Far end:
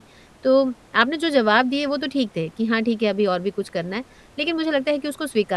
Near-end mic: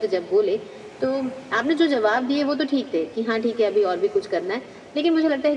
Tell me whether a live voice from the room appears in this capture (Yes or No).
No